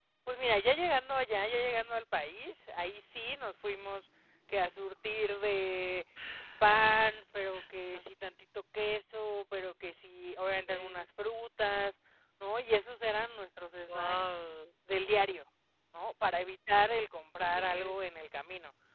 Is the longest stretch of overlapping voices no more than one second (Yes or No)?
Yes